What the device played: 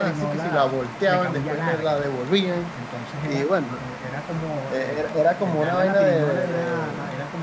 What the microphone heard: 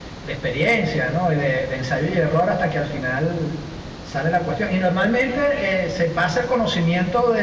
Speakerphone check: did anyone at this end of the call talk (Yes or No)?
Yes